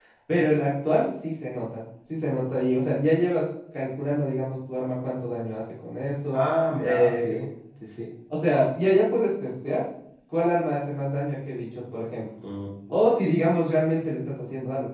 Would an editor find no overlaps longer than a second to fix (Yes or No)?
Yes